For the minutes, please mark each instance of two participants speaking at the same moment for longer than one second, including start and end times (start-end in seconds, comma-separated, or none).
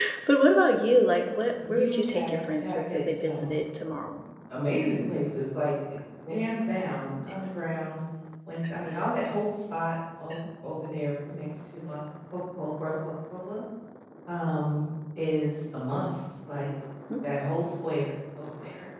1.6-3.5